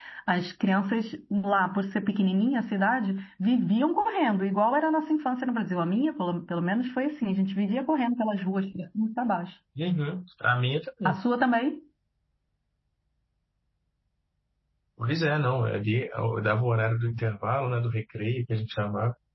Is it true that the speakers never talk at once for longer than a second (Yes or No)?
Yes